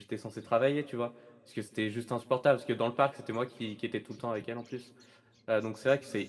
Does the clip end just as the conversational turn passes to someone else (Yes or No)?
No